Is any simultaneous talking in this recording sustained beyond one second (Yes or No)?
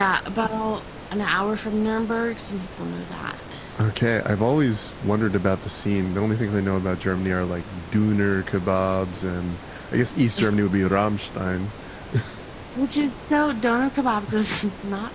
No